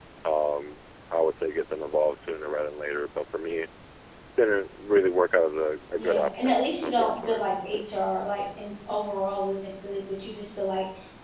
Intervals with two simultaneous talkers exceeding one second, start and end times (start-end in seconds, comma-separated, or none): 6.0-7.4